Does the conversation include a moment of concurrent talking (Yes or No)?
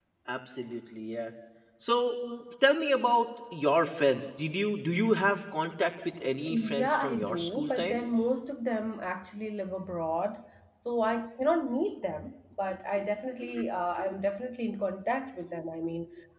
Yes